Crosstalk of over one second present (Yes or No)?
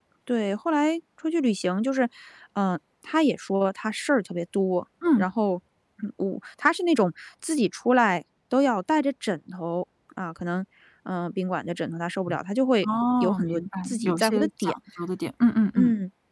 Yes